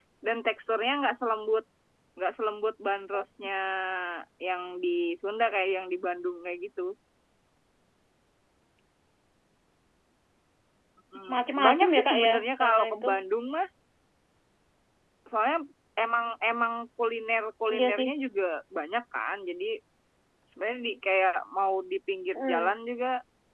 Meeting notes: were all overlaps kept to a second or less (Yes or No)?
No